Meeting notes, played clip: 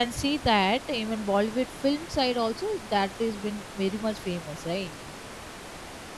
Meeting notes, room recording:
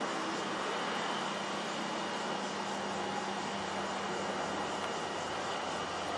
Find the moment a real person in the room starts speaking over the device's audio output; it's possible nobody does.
none

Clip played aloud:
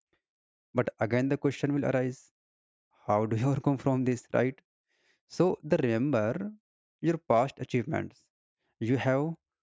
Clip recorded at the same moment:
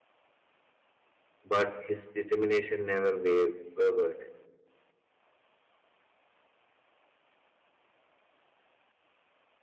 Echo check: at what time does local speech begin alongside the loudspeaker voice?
1 s

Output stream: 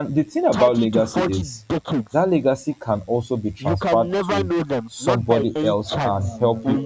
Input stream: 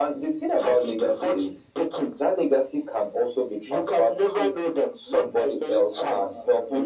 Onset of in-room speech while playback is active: none

